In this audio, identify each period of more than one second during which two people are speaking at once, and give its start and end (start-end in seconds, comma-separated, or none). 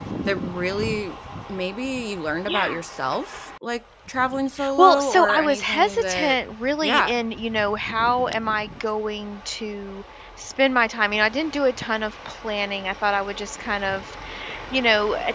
4.8-6.4